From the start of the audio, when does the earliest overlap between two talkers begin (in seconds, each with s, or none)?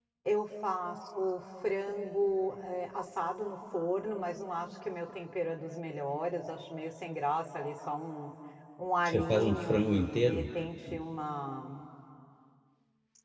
9.0 s